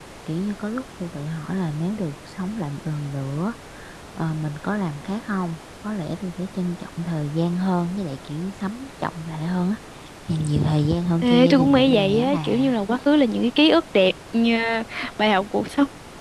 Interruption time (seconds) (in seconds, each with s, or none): 11.2 s